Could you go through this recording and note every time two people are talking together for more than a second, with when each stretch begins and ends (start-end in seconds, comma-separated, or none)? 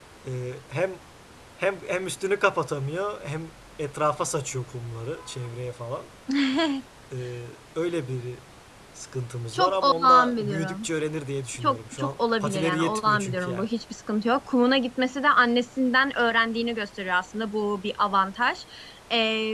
9.5-10.9, 11.6-13.7